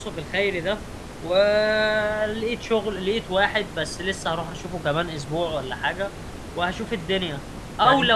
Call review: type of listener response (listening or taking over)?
listening